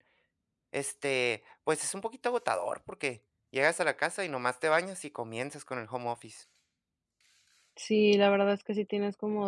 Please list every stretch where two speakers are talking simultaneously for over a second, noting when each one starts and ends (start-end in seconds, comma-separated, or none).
none